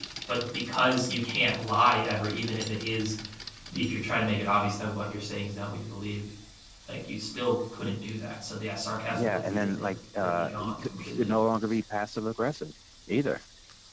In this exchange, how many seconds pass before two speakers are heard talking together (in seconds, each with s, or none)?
9.1 s